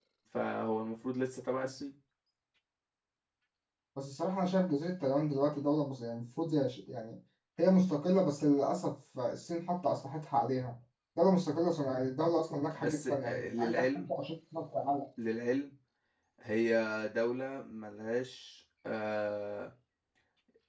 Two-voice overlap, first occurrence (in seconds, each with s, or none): 12.8 s